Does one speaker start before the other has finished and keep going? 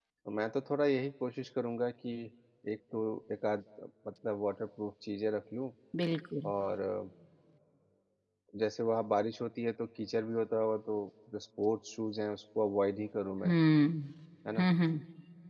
No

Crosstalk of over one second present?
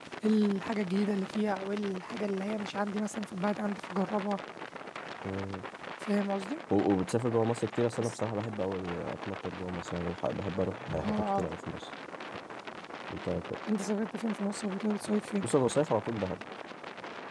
No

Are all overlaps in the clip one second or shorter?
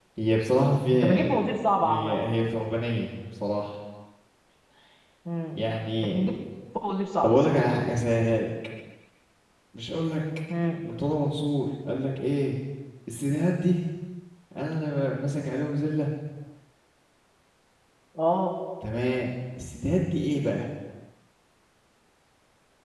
Yes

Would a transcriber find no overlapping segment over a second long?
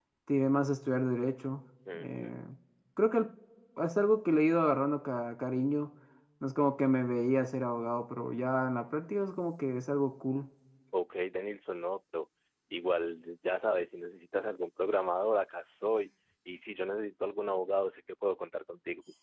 Yes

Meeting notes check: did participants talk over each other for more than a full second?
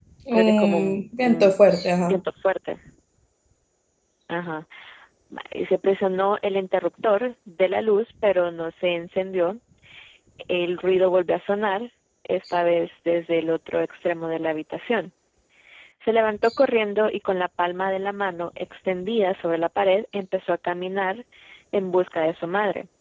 Yes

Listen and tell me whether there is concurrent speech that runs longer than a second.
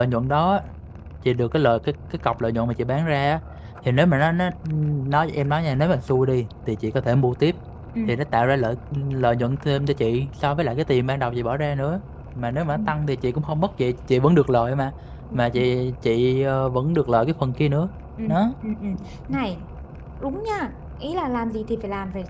No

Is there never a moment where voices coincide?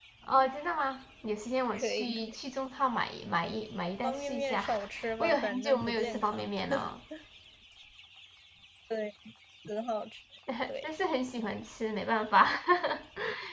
No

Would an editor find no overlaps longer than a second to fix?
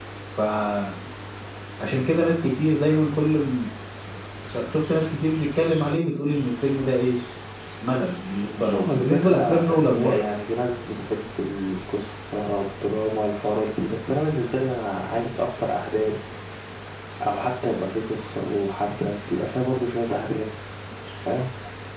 No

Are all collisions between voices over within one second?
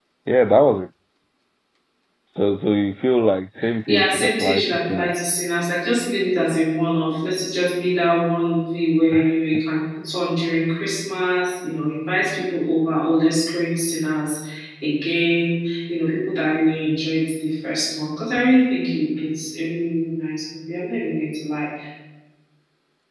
No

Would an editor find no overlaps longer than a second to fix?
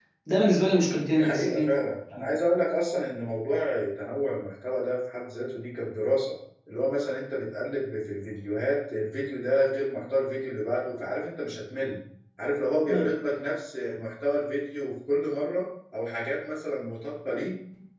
Yes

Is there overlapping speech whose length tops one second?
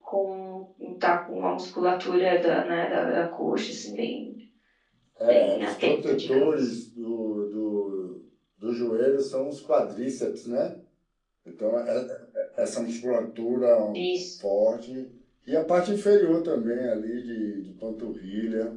Yes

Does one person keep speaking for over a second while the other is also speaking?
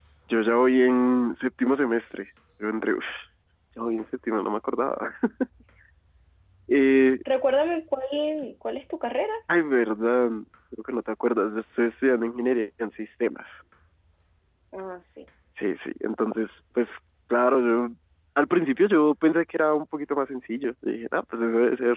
No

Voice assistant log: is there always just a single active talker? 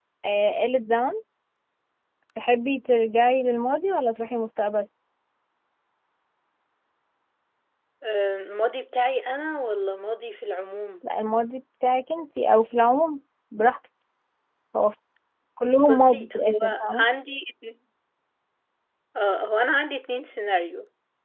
No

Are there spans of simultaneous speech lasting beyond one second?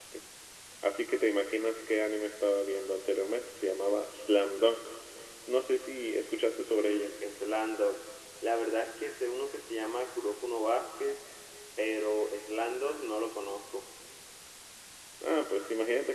No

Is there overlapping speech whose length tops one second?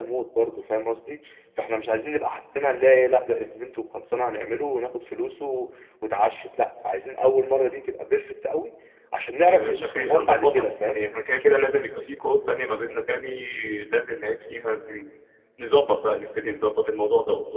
Yes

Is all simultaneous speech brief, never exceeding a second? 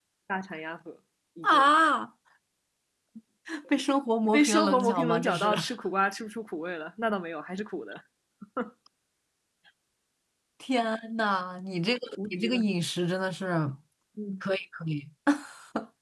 No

